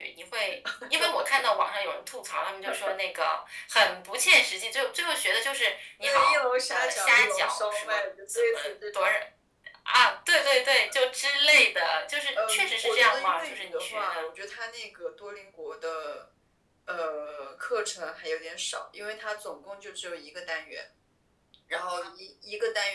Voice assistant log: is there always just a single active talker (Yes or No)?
No